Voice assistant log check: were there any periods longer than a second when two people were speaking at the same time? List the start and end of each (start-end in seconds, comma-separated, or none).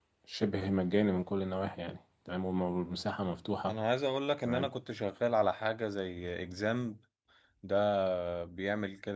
none